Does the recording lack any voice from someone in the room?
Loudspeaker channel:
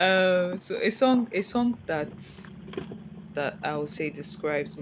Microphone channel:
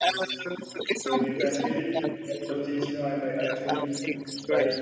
No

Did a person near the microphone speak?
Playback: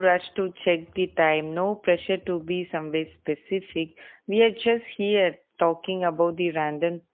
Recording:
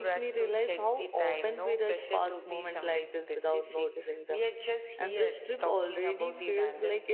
Yes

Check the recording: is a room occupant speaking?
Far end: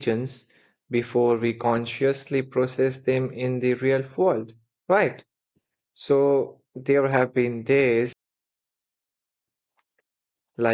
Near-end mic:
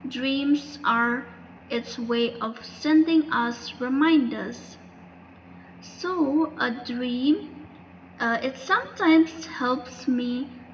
Yes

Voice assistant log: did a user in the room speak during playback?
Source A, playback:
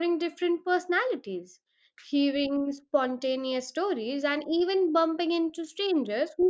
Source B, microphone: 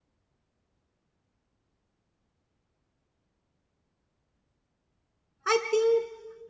Yes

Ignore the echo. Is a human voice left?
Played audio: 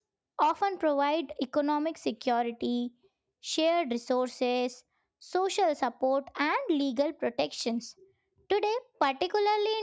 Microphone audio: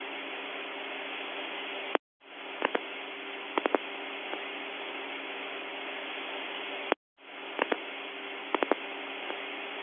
No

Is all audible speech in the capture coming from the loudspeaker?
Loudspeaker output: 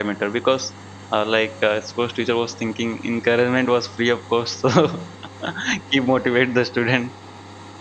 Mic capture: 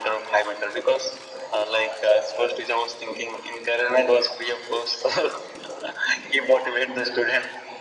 Yes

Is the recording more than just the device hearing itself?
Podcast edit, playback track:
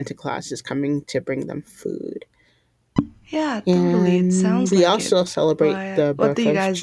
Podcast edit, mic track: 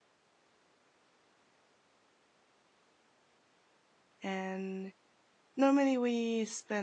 Yes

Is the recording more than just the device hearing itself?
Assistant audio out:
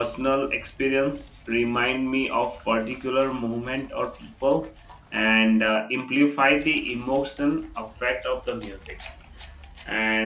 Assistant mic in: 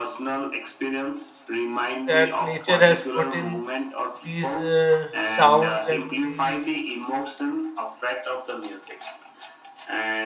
Yes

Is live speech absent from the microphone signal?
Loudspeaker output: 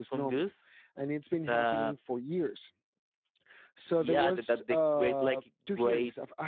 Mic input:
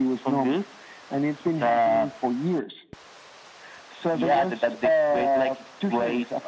Yes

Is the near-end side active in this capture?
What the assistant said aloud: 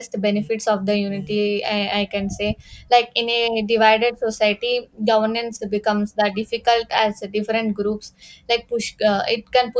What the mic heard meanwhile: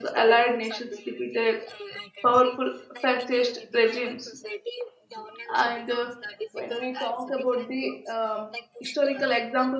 Yes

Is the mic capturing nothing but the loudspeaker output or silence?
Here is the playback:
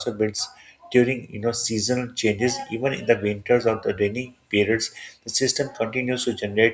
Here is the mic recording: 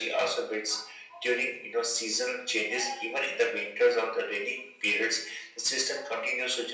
Yes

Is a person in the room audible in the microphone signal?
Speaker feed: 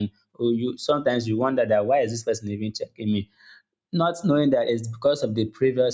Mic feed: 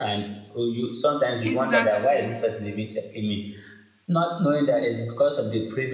Yes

